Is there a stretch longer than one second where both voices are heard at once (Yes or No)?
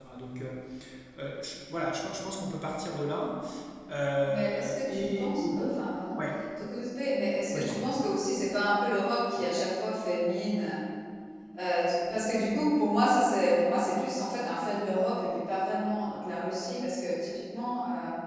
Yes